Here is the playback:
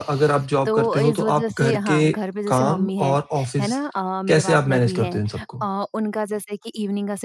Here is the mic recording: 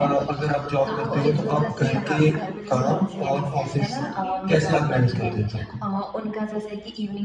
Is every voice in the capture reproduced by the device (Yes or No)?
No